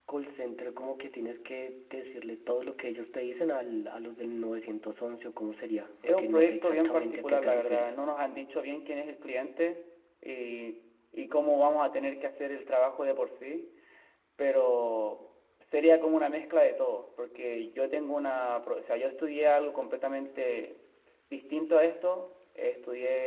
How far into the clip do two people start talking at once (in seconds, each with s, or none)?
6.0 s